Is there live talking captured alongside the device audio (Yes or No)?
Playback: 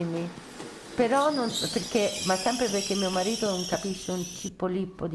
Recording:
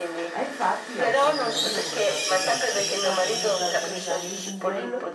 Yes